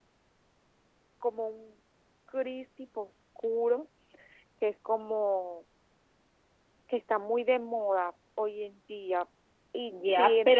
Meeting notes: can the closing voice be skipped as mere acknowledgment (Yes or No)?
No